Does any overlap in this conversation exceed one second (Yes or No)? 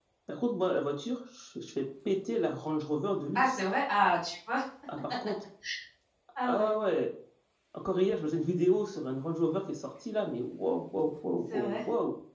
No